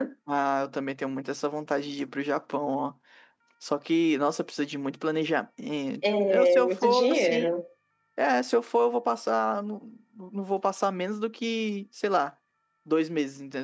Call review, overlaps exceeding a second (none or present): present